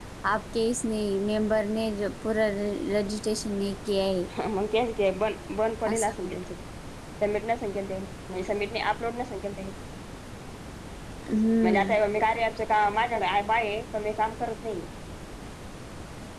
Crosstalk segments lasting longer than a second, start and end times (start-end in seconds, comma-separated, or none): none